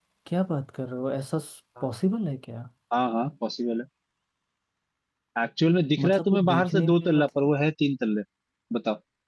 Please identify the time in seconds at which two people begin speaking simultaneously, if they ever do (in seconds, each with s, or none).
6.0 s